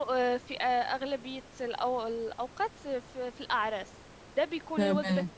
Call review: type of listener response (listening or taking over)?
listening